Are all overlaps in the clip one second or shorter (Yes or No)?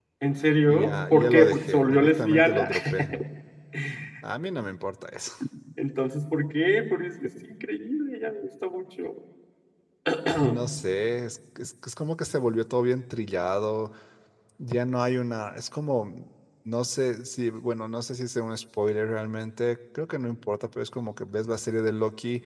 No